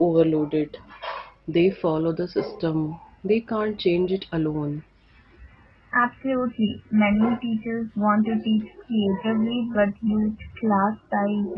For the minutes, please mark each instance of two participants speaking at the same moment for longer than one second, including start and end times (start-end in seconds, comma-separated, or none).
none